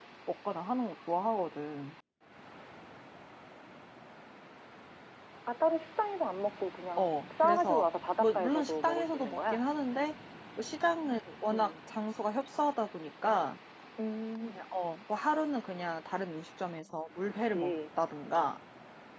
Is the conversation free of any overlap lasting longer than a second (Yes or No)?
No